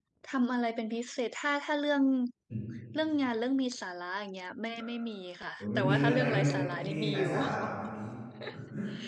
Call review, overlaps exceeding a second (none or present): present